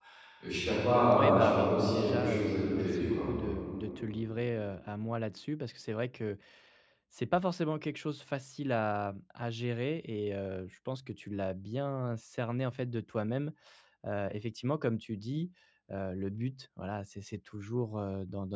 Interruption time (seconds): 1 s

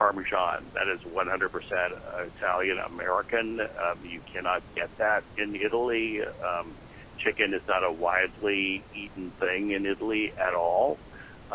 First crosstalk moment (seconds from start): none

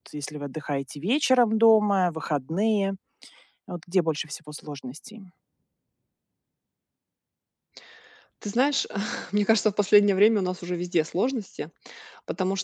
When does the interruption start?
none

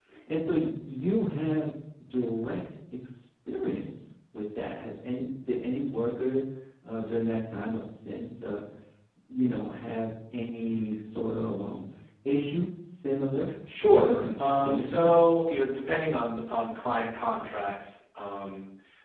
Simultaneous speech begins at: 14 s

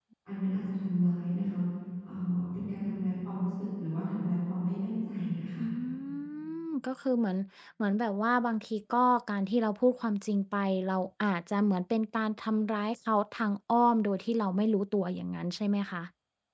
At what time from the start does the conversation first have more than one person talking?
none

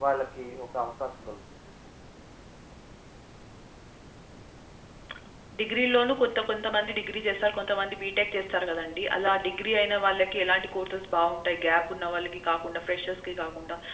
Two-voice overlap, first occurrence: none

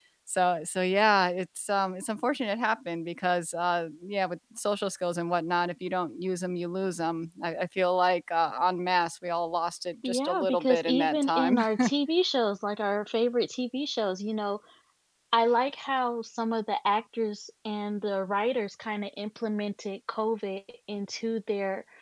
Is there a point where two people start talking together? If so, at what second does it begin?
10 s

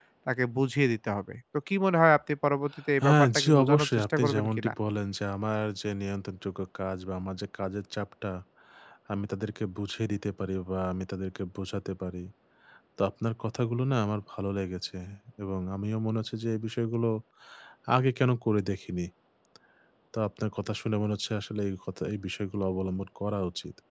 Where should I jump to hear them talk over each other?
3 s

